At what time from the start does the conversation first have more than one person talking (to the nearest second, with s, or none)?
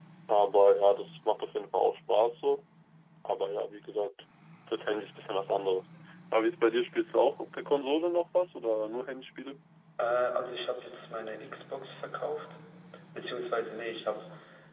none